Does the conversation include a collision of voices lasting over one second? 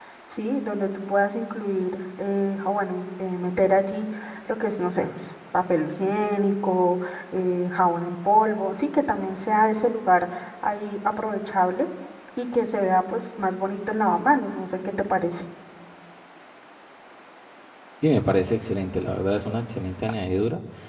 No

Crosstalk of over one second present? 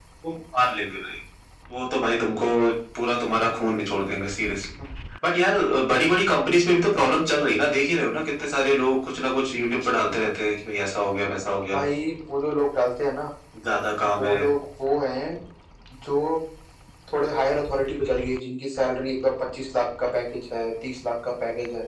No

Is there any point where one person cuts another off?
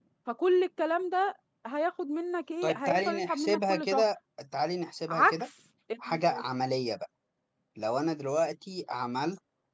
Yes, from 2.6 s

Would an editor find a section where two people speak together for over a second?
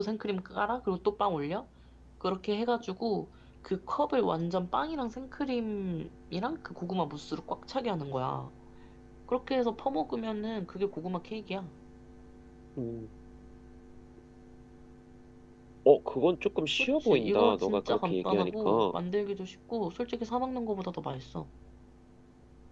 Yes, from 16.8 s

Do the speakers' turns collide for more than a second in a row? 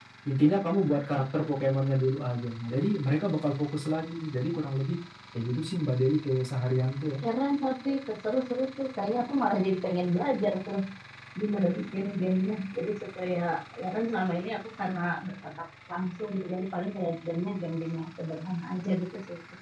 No

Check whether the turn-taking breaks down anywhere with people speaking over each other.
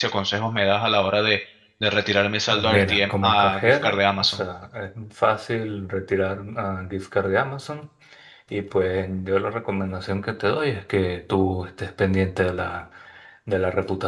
Yes, from 2.5 s

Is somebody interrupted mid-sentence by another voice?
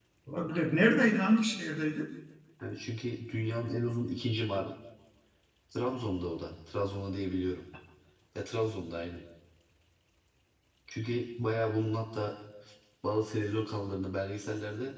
No

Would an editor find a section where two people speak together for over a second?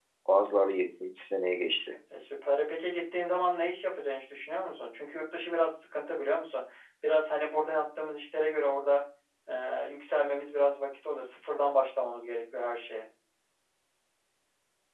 No

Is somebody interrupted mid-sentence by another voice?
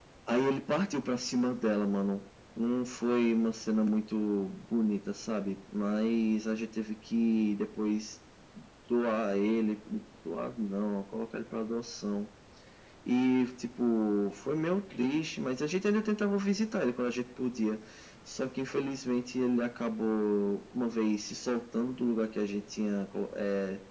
No

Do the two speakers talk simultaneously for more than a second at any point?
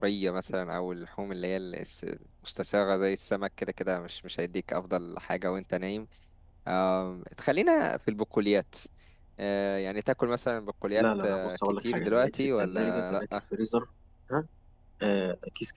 Yes, from 11.0 s

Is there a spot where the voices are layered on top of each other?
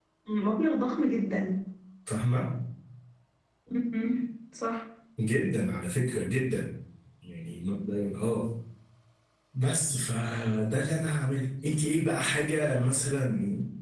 No

